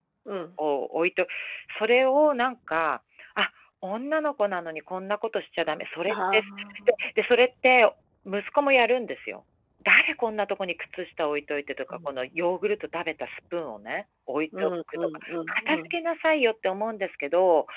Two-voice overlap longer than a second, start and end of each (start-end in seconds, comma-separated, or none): 14.6-16.0